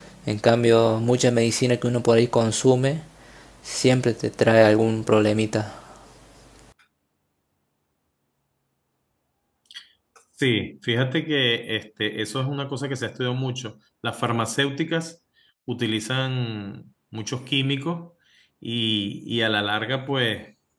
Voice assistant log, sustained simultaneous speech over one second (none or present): none